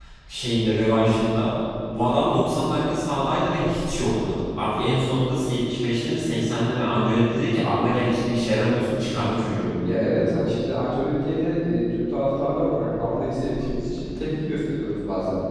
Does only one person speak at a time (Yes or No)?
Yes